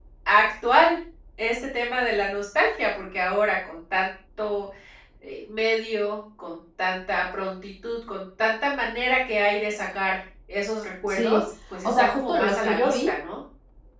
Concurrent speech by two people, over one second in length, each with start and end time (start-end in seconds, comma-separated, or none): 11.8-13.1